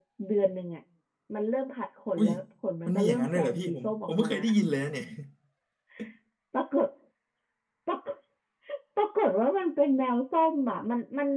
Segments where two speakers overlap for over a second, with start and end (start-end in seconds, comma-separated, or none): 2.9-4.3